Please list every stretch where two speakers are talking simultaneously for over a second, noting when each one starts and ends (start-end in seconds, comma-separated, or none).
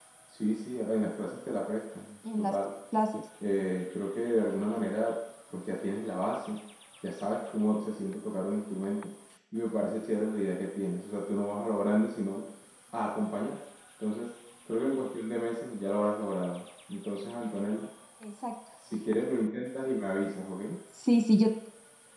none